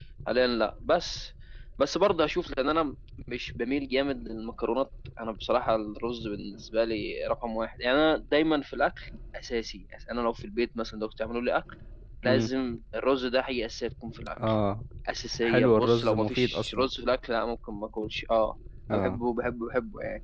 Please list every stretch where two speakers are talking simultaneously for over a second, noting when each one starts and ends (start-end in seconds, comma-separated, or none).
15.4-16.9